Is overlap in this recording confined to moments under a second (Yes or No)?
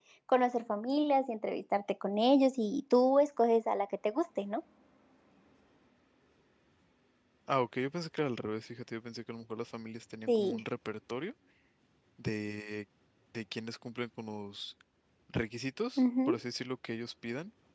Yes